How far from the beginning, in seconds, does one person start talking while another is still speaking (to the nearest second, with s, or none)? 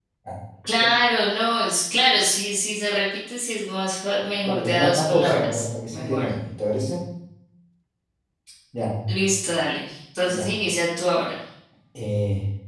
4 s